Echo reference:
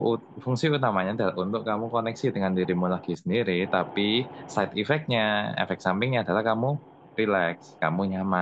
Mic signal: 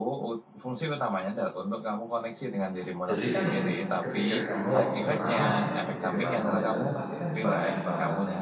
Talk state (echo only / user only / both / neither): both